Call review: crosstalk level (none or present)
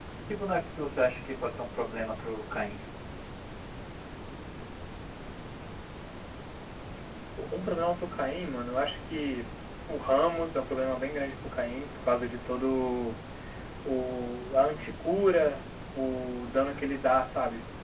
none